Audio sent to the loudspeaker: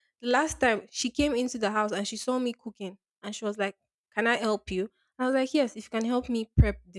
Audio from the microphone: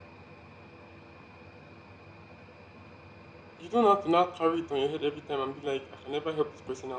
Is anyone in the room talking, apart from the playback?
Yes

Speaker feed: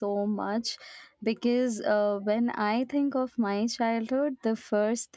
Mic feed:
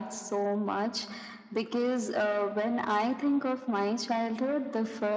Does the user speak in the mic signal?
No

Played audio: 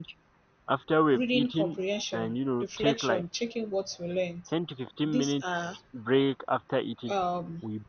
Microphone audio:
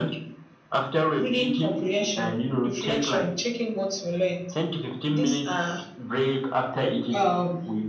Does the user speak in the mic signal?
No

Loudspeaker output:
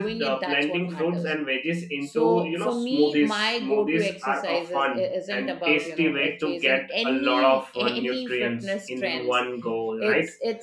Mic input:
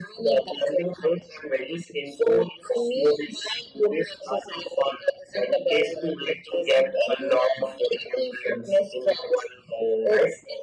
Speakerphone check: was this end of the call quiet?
Yes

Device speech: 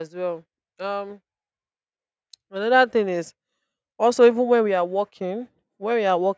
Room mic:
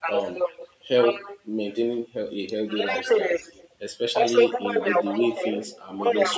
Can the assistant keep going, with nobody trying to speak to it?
No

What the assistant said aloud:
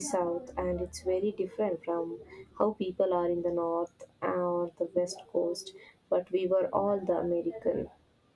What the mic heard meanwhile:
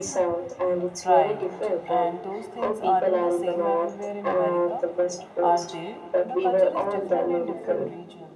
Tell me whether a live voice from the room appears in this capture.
Yes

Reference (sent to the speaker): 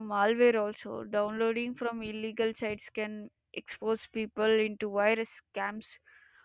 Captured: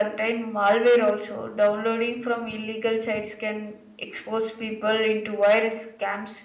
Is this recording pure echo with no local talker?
Yes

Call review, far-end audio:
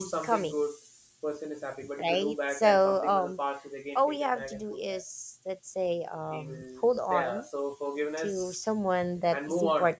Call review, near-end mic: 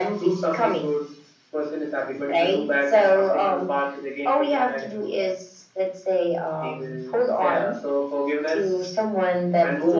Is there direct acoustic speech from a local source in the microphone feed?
No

